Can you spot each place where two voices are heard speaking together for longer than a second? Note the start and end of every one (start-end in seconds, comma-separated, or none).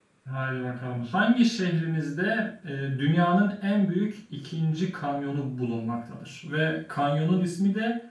none